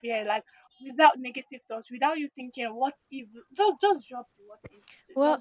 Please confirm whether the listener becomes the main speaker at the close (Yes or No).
Yes